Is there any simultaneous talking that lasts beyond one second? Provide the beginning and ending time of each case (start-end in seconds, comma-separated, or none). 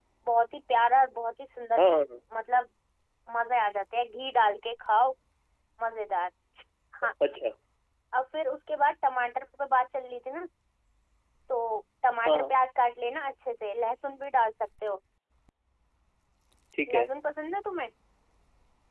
none